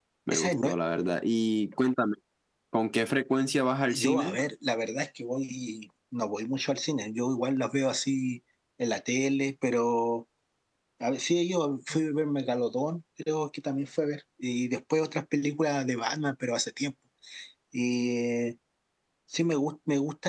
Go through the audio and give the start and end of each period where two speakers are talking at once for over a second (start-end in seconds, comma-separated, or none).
none